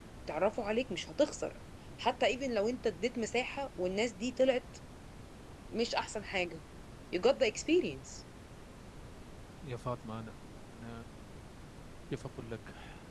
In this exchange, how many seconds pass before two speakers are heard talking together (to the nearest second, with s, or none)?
none